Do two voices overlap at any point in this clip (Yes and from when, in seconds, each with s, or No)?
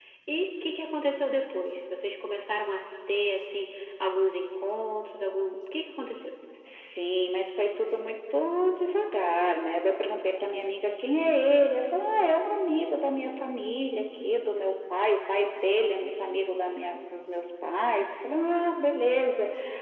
No